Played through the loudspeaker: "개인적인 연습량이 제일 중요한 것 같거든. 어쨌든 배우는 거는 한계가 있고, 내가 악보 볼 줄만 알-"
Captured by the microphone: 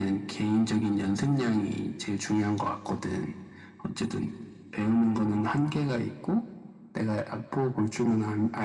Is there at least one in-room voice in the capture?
No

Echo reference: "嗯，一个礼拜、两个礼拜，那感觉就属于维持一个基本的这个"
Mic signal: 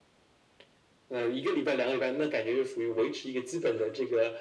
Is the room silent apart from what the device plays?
Yes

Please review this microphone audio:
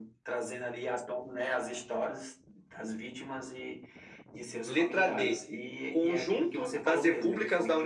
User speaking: Yes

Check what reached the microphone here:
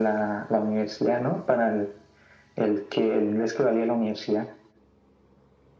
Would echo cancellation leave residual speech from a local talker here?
No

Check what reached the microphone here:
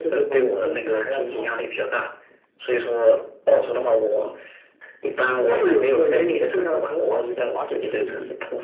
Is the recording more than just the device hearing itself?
No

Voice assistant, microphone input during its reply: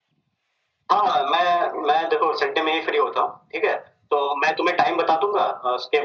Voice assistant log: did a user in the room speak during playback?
No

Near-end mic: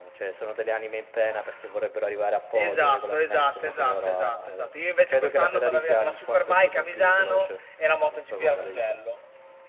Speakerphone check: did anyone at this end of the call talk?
No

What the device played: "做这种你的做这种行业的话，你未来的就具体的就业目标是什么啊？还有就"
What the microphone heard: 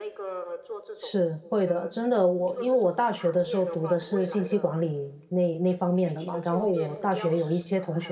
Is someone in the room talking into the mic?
Yes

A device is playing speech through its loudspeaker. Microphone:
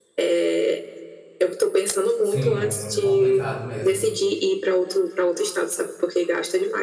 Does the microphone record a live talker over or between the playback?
Yes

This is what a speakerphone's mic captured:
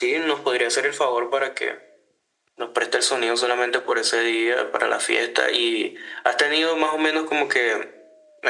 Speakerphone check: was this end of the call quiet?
Yes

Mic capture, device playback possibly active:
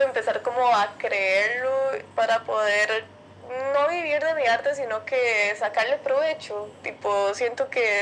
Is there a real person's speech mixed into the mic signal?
No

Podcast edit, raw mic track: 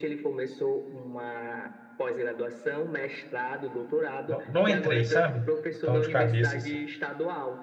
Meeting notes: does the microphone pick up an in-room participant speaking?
Yes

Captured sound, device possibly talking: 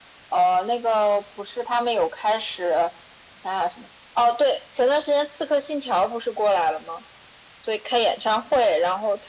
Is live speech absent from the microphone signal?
Yes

